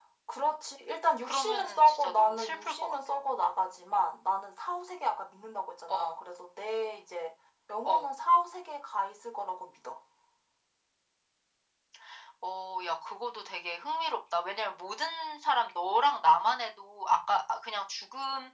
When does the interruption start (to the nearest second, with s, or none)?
1 s